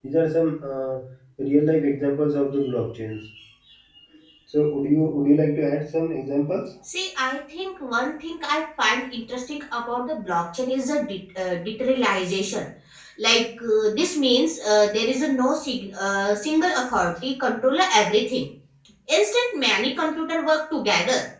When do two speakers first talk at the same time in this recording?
none

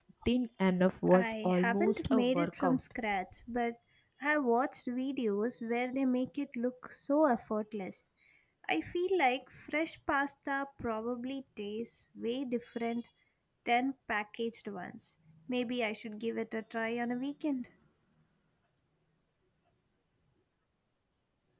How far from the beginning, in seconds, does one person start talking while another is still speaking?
1.1 s

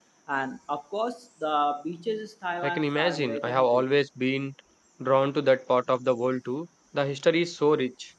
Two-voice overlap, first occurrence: 2.6 s

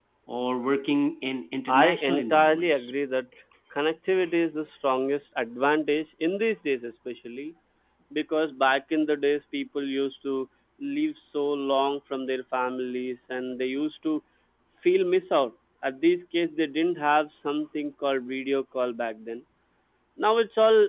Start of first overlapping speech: 1.7 s

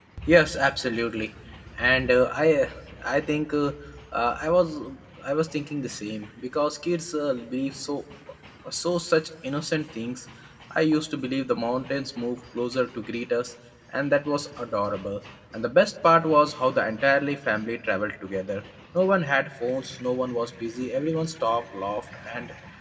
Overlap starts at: none

